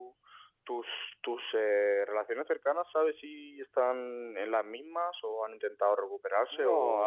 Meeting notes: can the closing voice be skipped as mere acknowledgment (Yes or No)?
No